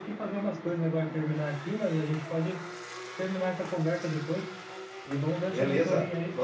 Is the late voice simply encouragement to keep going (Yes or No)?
No